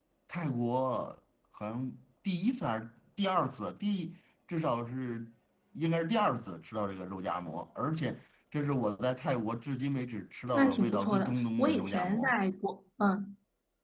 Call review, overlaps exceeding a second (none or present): present